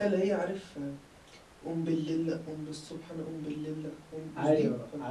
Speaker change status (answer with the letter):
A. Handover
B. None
A